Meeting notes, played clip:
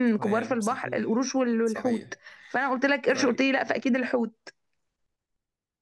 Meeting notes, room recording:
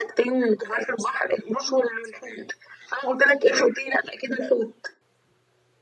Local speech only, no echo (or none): none